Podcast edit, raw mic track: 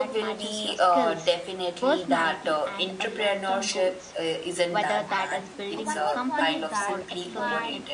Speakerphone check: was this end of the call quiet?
No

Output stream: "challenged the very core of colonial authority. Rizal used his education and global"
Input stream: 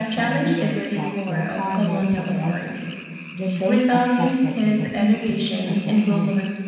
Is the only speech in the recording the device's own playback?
No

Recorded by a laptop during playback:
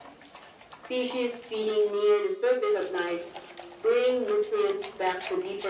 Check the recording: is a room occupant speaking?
No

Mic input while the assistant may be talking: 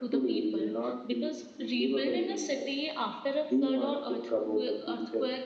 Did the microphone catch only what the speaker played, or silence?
No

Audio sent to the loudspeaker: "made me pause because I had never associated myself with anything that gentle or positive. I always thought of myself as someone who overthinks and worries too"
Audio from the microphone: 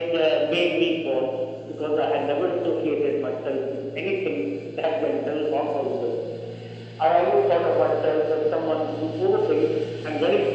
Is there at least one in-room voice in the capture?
No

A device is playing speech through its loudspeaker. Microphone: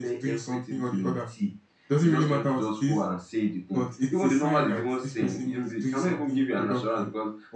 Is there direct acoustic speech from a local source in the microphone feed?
No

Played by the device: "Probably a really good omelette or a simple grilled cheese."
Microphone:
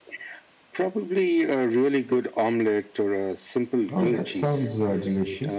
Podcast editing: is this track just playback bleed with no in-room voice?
No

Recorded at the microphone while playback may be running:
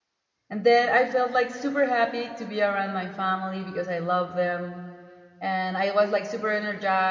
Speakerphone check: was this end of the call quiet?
No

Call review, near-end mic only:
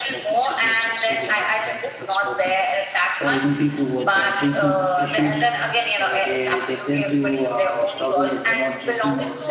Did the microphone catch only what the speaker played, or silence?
No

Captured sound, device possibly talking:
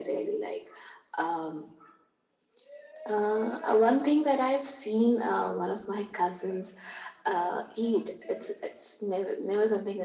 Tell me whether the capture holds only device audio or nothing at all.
Yes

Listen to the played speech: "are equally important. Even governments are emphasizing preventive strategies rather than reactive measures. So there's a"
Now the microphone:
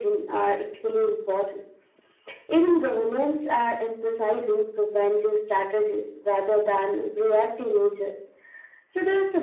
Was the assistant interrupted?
No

